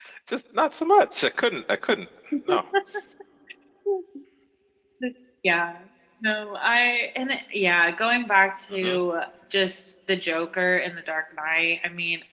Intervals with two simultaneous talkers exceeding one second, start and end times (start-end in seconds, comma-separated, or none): none